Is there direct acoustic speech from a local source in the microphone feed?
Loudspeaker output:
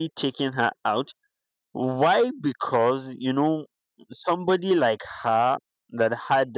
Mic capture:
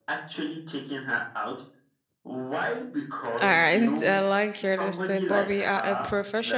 Yes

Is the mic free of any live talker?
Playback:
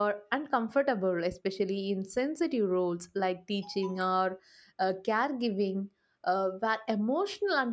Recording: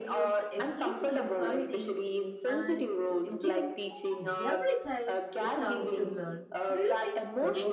No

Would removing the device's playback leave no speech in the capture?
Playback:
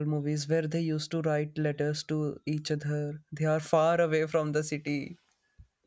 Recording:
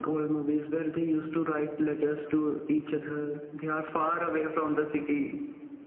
Yes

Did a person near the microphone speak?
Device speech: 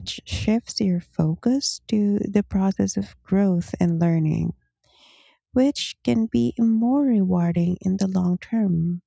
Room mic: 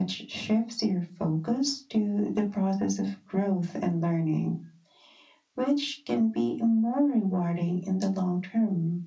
No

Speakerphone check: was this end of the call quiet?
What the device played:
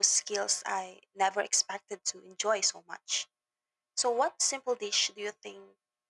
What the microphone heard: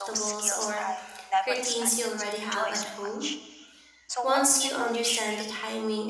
No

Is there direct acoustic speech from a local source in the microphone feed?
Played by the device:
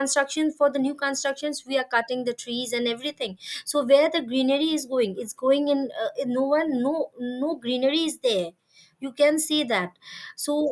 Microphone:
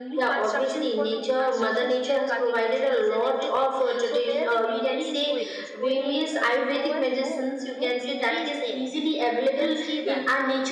Yes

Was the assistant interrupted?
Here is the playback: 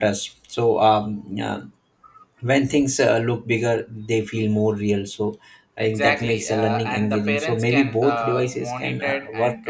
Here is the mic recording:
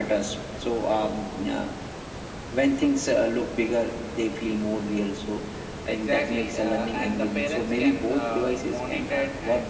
No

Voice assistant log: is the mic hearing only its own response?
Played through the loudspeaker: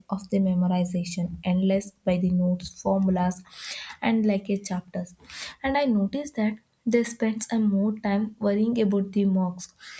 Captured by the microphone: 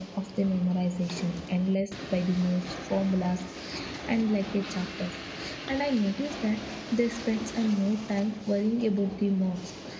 Yes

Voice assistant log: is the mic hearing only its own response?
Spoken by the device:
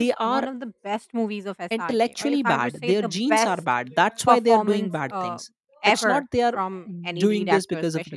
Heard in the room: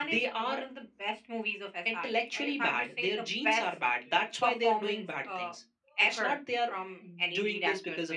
Yes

